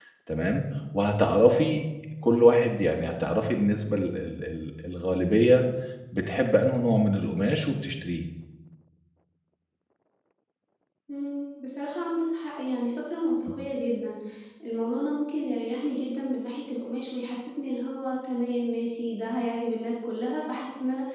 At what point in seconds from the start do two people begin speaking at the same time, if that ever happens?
none

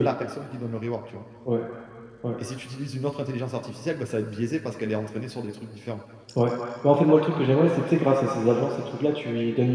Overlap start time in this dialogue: none

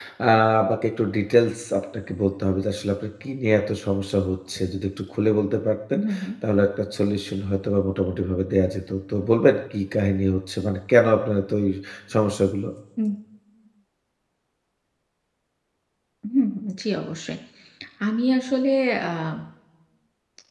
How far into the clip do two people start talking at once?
none

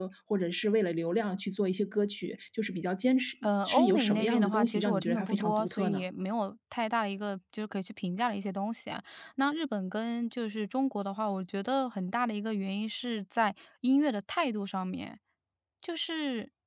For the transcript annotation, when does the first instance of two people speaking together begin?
3.4 s

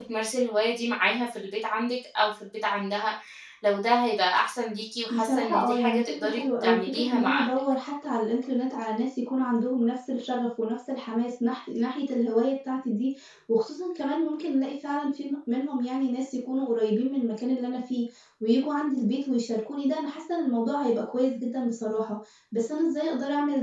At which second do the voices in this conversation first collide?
5.1 s

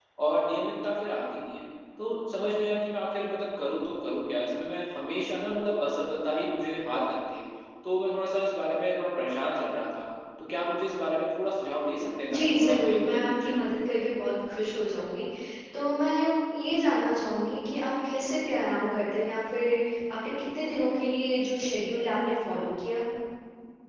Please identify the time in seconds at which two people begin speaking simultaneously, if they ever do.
12.3 s

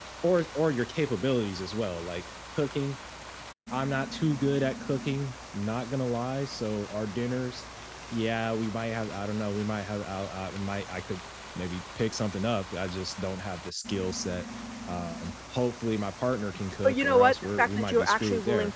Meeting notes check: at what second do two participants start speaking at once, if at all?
16.8 s

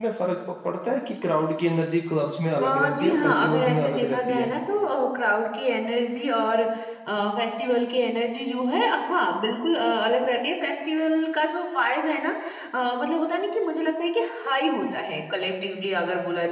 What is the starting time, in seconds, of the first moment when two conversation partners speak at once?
2.6 s

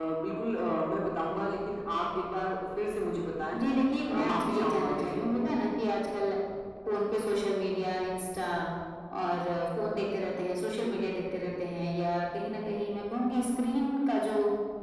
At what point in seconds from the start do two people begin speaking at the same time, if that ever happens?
4.1 s

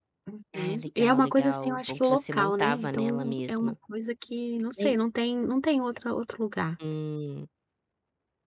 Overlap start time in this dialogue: 0.6 s

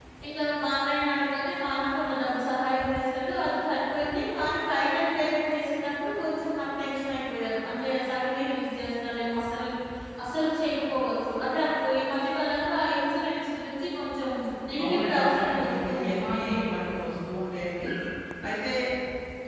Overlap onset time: 14.8 s

